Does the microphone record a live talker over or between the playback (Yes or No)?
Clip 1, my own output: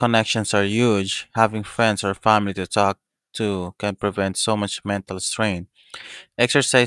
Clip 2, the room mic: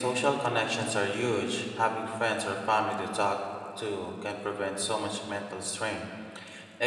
No